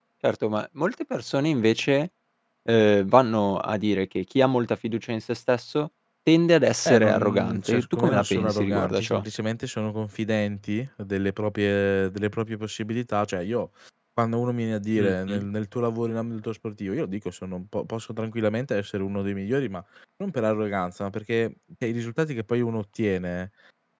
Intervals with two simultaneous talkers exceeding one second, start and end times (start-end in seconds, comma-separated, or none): 6.8-9.2